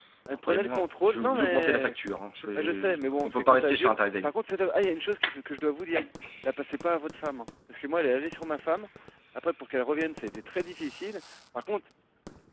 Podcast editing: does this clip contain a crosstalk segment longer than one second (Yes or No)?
Yes